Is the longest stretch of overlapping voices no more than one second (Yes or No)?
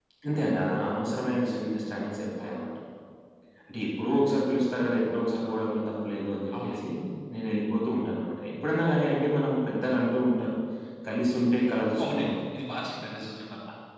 Yes